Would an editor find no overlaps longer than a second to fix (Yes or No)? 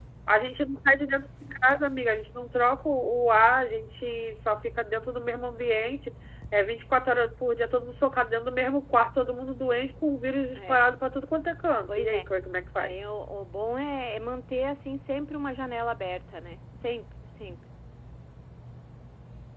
Yes